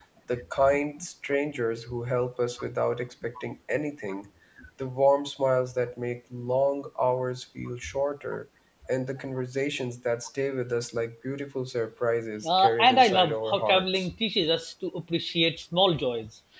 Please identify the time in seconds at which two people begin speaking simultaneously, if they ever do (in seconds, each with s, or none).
12.4 s